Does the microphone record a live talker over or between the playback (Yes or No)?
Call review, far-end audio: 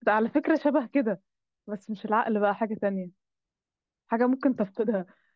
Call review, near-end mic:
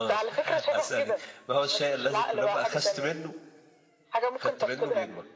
Yes